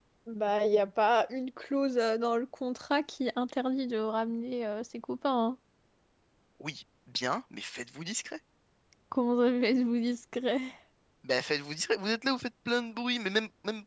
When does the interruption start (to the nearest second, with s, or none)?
none